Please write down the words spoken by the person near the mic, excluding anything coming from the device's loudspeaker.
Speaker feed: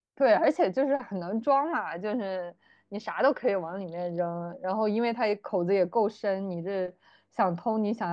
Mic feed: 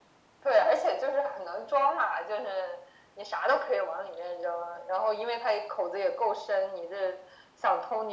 none

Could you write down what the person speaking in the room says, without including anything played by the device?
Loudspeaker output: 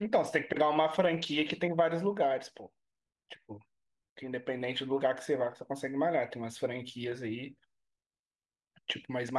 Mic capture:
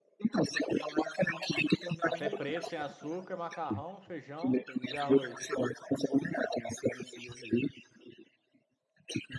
Café preto, sem açúcar, macarrão, feijão e arroz.

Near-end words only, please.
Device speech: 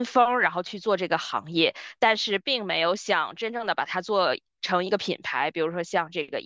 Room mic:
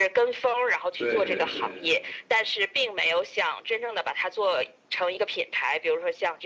对对对

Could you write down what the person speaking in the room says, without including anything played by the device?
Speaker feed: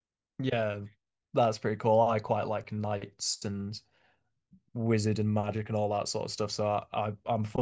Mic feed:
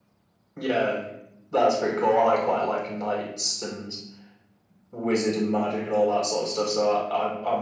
none

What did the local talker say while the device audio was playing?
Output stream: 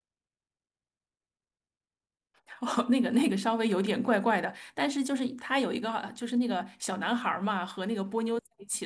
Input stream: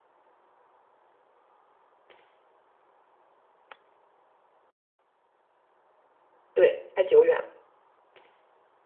对，太久远了，

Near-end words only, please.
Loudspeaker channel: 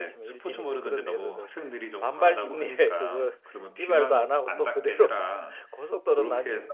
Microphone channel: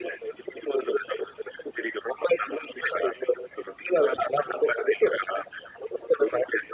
none

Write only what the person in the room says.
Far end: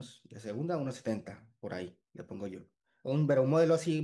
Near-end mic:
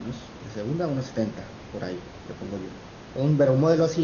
none

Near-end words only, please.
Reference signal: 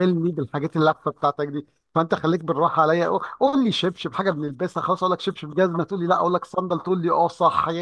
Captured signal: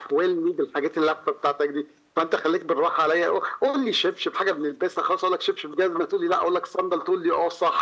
none

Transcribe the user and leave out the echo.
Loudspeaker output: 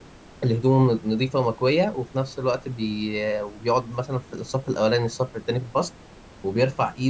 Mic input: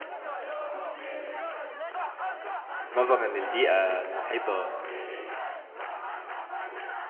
نظرا للبيئه المحيطه

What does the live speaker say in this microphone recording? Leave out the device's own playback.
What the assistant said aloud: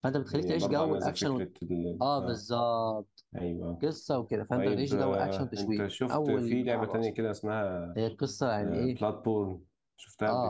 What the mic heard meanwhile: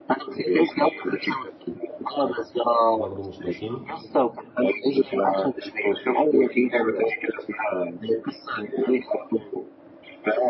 برضه مش ناسينه

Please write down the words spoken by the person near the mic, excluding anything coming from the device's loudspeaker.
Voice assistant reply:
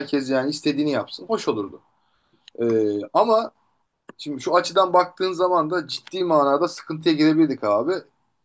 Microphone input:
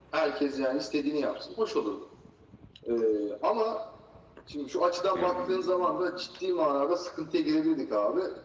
Hı hı,

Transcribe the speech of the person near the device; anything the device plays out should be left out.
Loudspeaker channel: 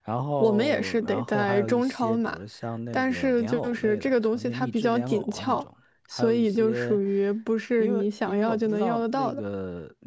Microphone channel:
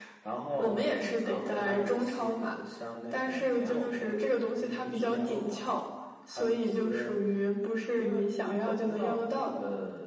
none

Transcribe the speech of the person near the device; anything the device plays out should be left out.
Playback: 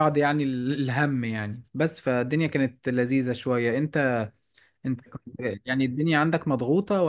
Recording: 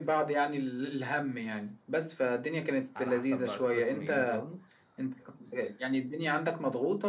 على حسب بقى القسم ايه نظامه

